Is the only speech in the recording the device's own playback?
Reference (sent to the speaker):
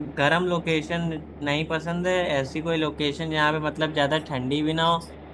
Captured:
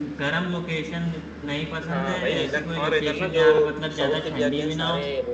No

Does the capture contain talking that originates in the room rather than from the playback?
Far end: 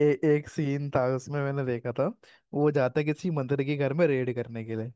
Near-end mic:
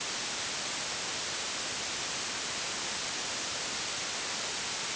No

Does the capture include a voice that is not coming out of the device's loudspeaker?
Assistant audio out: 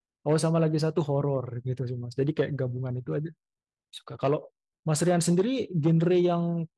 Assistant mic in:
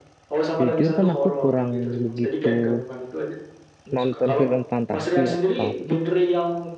Yes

